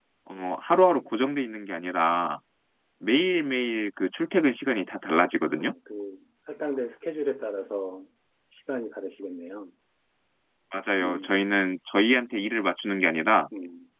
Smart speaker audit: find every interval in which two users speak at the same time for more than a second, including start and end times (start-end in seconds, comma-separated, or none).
none